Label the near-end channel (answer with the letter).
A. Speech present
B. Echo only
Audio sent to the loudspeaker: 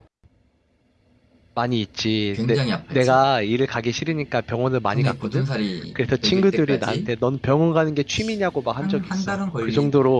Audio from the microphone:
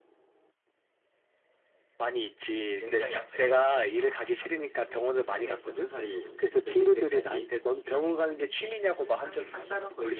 A